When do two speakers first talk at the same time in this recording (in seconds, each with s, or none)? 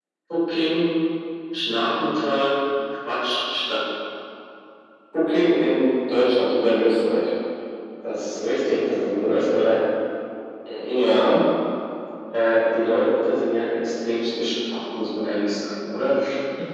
none